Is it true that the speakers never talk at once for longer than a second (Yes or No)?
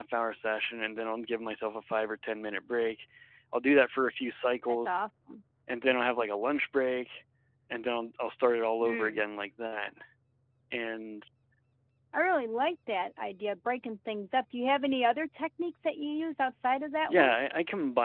Yes